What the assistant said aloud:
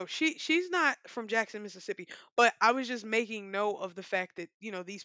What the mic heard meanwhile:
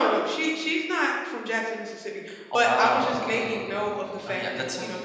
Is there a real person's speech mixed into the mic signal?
Yes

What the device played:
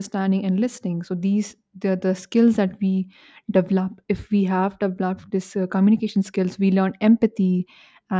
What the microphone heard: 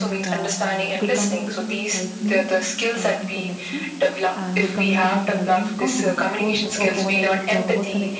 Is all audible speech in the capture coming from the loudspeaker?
No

